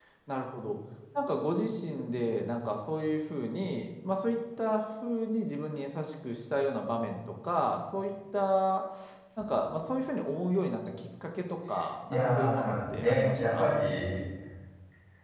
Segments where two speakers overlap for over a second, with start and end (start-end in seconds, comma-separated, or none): 12.1-13.7